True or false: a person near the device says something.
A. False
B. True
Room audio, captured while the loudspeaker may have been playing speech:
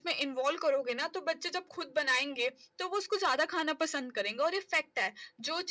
A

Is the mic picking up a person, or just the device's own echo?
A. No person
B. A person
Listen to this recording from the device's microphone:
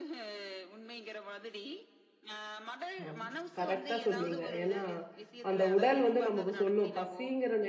B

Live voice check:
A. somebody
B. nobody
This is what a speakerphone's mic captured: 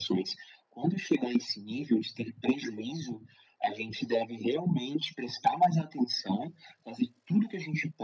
B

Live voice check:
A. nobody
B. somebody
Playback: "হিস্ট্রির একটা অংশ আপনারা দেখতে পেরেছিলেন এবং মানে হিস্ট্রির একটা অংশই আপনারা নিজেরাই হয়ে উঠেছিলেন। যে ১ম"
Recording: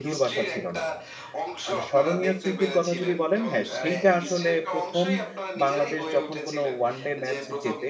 B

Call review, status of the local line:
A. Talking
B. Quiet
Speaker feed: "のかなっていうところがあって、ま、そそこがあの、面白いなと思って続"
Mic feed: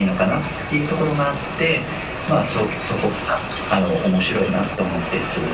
B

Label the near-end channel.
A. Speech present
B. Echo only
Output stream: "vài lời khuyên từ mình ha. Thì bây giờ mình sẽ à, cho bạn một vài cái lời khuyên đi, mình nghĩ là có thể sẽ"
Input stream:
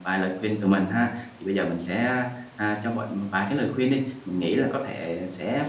B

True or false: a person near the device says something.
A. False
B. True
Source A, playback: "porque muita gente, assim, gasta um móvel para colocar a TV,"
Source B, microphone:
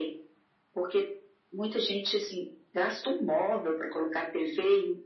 A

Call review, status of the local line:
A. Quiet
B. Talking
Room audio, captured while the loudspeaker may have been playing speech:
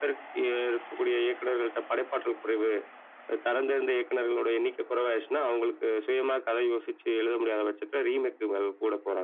A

